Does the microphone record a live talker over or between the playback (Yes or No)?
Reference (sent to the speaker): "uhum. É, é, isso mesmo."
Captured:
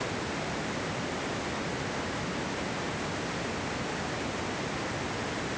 No